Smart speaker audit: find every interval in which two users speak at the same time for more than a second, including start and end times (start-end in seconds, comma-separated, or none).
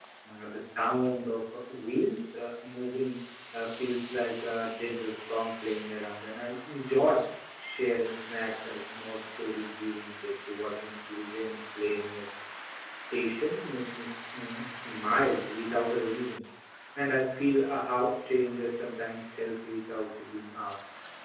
none